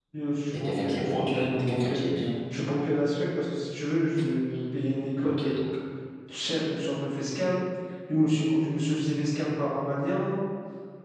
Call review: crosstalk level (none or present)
present